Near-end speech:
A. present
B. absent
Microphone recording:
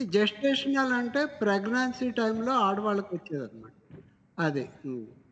A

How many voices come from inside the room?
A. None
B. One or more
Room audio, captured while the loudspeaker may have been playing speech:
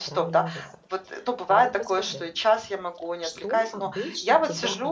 B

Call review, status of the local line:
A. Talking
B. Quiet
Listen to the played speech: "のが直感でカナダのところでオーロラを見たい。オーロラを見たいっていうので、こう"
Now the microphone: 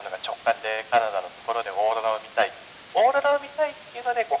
B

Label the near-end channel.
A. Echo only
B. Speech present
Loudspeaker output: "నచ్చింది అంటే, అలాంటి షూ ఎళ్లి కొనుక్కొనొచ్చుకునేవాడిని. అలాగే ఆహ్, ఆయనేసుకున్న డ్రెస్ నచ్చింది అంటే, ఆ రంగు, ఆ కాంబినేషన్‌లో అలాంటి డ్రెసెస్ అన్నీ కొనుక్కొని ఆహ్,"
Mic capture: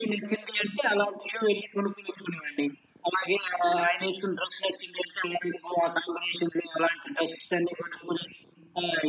A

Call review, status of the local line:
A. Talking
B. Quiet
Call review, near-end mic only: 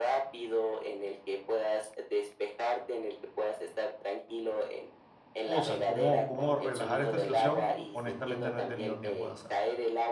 A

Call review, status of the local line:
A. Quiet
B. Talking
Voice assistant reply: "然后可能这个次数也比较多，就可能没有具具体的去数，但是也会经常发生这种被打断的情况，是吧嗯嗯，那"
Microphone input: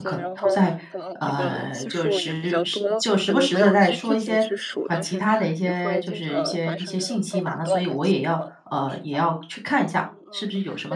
B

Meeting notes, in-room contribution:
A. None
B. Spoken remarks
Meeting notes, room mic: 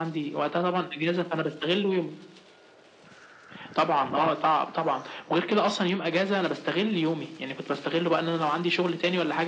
A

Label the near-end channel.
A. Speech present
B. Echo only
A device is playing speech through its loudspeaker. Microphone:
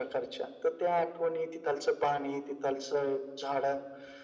B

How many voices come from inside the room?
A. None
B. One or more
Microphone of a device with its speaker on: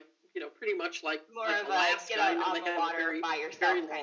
B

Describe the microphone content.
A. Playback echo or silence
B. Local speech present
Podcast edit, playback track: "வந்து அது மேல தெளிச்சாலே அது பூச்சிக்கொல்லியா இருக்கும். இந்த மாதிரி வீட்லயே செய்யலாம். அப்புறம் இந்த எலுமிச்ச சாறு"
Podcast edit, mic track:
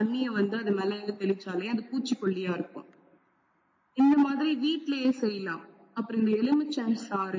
A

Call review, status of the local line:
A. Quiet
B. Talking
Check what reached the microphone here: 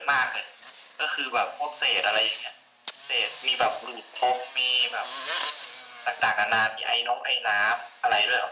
A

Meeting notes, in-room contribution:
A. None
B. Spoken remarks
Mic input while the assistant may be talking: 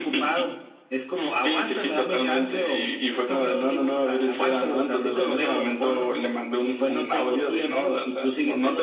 A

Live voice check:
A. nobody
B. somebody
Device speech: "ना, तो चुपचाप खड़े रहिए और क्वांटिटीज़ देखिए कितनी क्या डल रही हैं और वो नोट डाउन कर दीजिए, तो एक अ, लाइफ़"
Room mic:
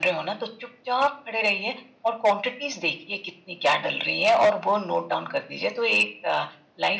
A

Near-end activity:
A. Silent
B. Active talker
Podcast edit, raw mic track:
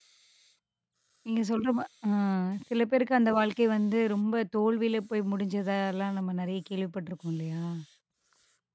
B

